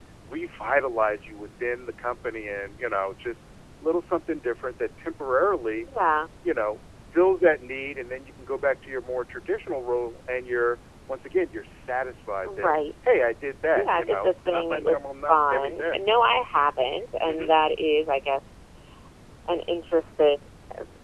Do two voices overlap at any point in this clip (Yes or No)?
Yes